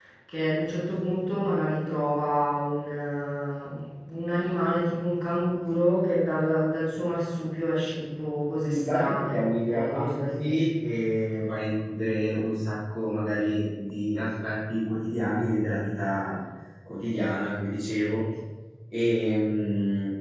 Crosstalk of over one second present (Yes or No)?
Yes